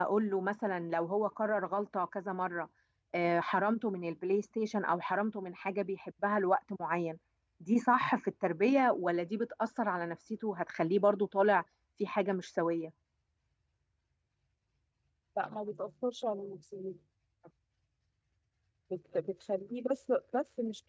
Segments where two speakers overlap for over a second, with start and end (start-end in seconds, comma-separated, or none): none